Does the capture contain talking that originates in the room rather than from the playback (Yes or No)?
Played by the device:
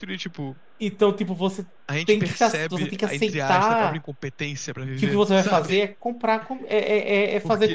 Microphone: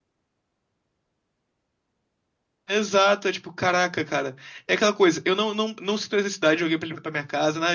Yes